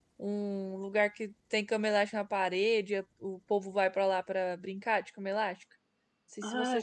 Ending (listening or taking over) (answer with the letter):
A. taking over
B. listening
A